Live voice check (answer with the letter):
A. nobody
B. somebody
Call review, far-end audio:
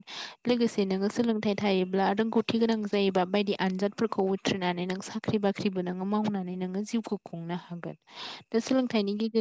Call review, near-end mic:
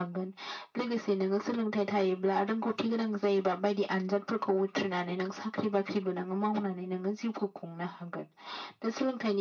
A